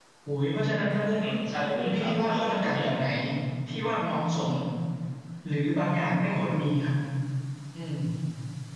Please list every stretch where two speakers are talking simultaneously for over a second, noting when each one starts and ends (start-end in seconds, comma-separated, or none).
1.8-3.1